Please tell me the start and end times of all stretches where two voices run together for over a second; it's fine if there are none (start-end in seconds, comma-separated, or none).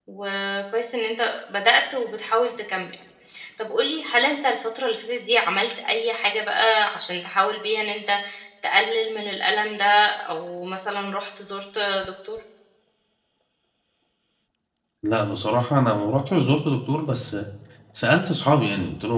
none